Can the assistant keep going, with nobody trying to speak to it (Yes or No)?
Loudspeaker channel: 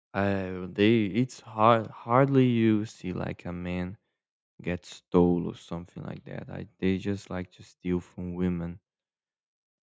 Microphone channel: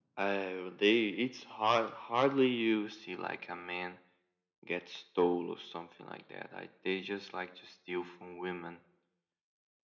Yes